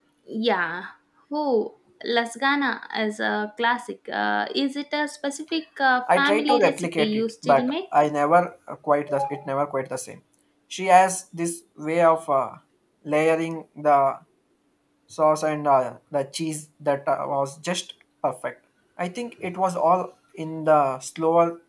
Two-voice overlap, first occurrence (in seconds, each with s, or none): 6.1 s